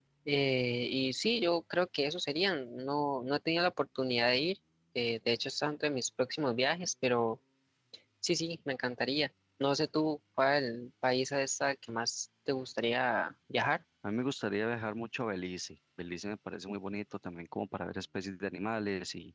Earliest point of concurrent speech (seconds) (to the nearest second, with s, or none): none